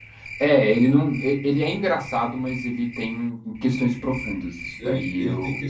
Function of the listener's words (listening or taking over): taking over